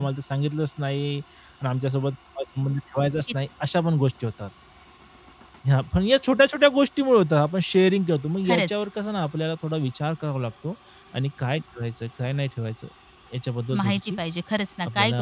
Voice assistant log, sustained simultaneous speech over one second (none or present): none